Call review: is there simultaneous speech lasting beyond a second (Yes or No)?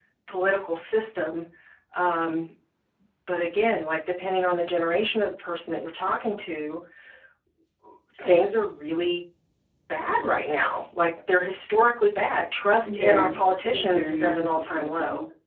Yes